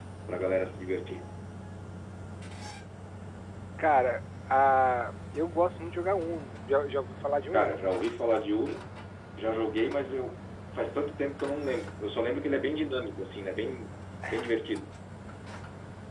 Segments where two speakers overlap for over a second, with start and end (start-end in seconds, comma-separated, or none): none